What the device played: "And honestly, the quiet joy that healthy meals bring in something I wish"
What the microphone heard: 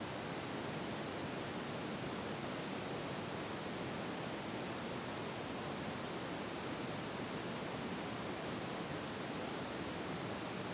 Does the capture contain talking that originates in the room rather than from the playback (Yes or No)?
No